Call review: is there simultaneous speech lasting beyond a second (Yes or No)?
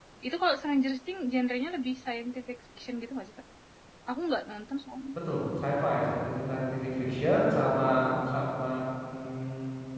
No